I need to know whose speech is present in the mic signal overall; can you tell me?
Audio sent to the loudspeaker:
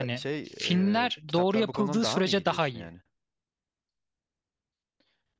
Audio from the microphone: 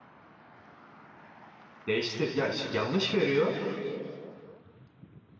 user only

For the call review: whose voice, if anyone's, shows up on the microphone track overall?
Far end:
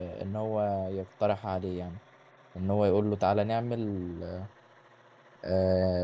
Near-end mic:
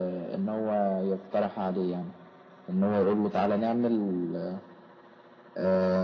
echo only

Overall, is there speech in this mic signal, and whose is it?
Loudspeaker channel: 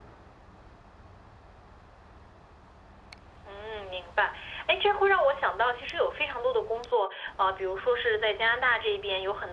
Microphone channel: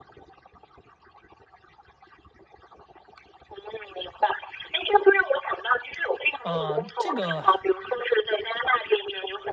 both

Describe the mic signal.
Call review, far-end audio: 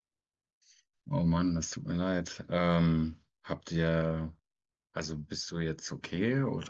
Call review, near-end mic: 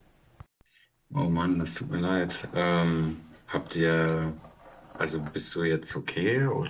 echo only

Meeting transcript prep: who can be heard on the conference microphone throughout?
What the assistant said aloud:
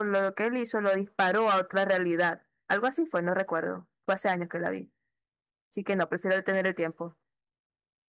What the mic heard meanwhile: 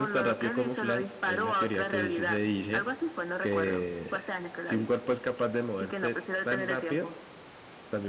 both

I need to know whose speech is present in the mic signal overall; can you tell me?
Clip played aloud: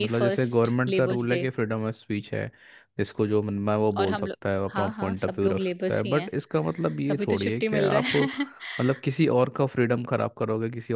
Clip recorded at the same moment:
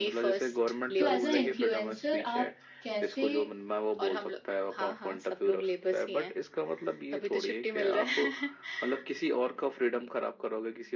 both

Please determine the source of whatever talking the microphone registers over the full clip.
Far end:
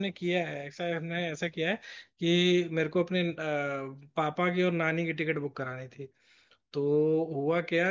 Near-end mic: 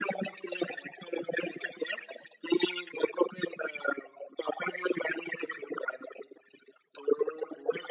echo only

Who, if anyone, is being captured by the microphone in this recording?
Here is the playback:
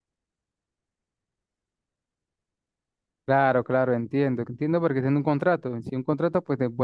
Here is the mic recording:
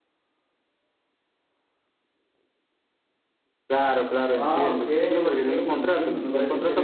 both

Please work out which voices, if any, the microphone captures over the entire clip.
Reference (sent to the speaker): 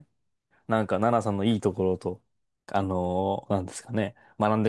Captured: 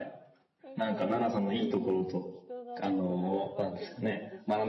both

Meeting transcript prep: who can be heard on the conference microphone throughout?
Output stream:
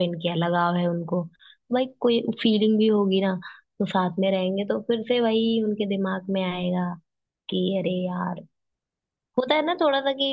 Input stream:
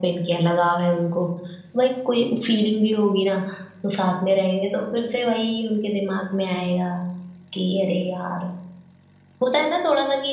both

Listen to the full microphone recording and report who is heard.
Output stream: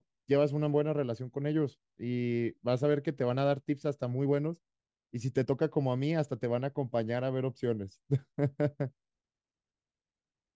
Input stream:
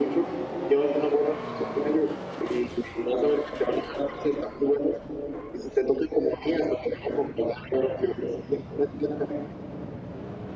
echo only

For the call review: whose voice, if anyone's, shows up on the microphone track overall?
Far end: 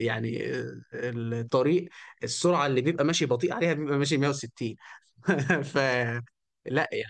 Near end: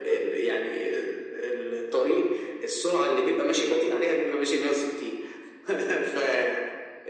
echo only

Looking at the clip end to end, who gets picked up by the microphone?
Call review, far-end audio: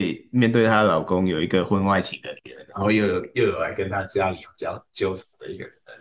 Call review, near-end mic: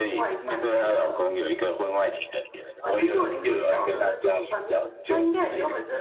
both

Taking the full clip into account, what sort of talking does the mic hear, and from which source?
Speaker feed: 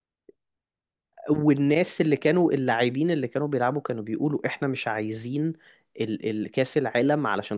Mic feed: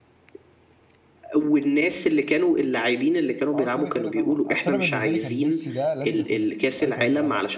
both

